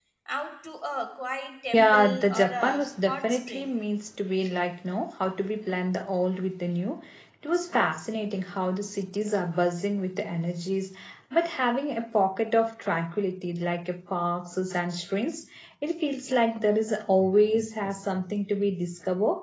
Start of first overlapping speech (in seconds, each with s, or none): 1.7 s